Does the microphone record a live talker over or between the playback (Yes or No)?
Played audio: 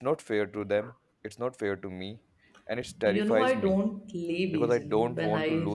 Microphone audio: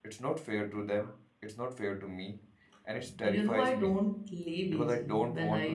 No